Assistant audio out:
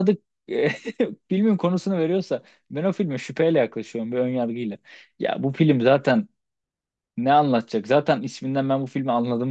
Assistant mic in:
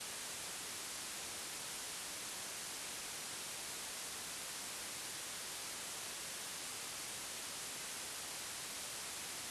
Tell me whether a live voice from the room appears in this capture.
No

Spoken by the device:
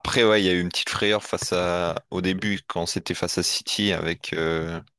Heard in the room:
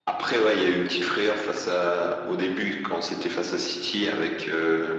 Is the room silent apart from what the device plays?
Yes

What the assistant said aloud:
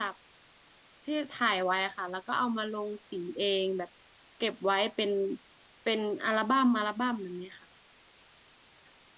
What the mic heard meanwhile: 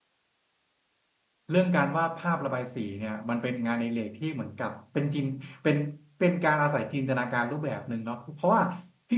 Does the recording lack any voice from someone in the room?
No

